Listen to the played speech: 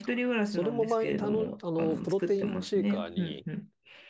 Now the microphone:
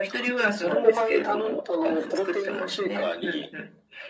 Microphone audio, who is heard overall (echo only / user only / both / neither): echo only